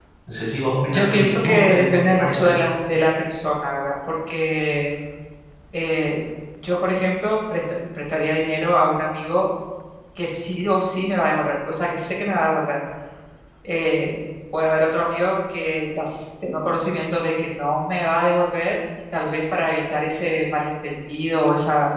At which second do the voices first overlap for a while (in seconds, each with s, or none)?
0.9 s